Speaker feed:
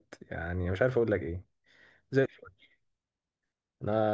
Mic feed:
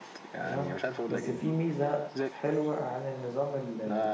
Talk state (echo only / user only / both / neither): both